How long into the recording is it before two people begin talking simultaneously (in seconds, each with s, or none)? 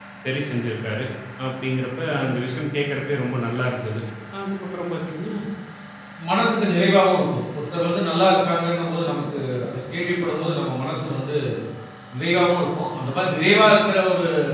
none